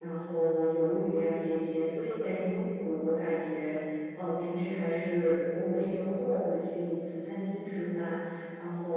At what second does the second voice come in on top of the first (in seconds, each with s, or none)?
none